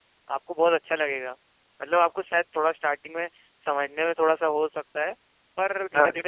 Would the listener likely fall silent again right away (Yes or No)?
Yes